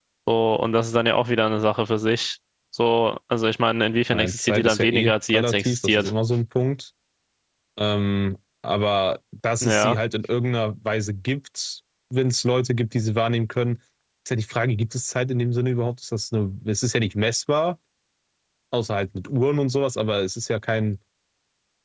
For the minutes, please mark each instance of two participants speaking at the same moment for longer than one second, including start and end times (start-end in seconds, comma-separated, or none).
4.1-6.1